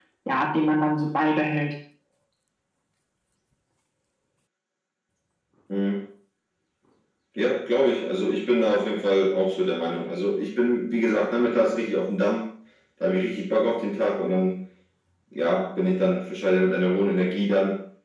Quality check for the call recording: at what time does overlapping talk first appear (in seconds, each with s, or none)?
none